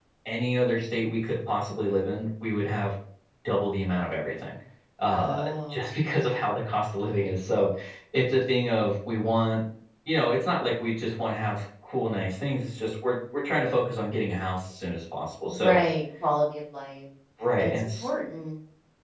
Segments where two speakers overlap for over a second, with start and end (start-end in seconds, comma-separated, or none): 5.1-6.5